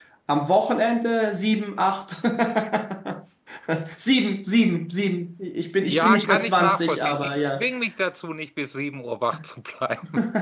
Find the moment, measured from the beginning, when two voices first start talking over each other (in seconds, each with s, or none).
5.9 s